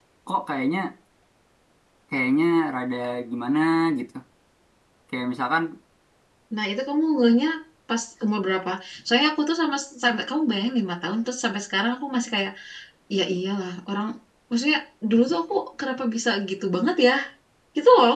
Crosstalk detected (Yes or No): No